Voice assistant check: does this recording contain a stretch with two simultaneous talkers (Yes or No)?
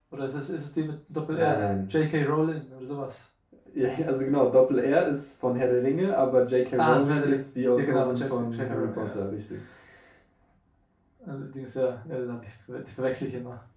Yes